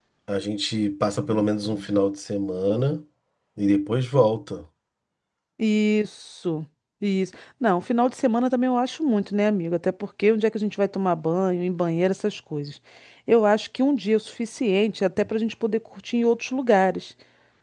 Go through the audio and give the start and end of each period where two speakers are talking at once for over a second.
none

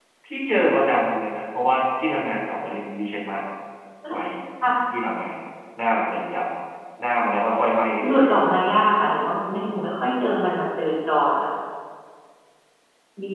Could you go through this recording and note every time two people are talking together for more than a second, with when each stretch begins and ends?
none

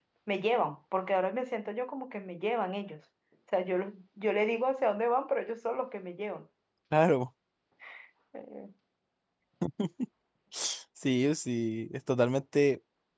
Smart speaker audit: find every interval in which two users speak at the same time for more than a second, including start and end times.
none

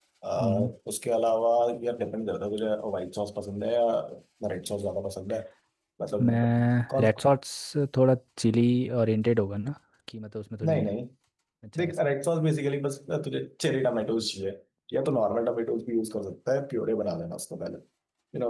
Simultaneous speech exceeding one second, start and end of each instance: none

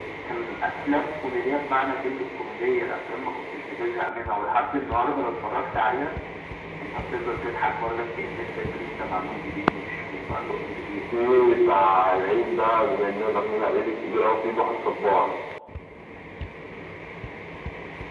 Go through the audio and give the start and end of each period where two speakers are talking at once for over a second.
none

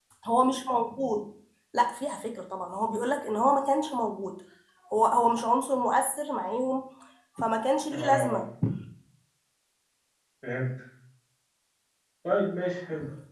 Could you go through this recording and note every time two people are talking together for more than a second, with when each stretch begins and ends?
none

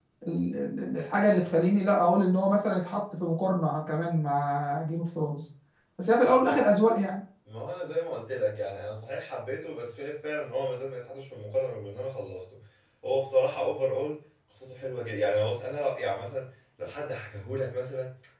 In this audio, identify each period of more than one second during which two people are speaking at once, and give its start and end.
none

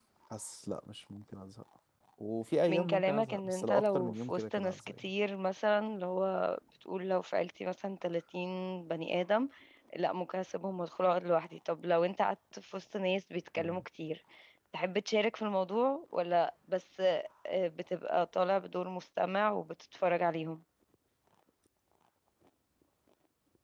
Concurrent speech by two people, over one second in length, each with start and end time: 2.7-5.0

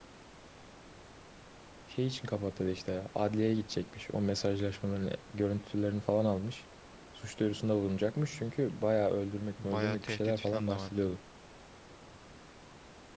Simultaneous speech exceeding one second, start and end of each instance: 9.6-11.1

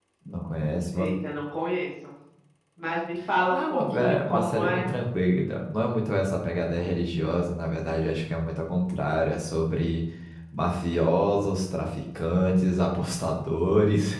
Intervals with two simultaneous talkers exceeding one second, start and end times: 3.5-4.9

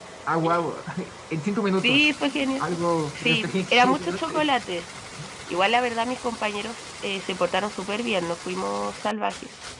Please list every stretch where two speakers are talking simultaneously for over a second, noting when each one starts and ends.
3.1-4.5

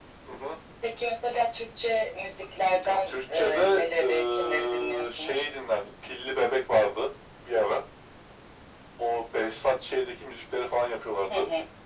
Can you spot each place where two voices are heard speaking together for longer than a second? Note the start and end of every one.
2.8-5.4

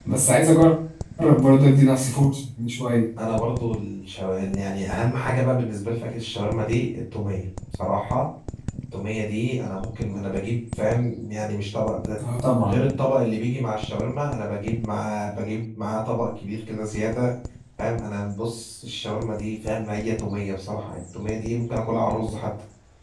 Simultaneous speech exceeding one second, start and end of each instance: none

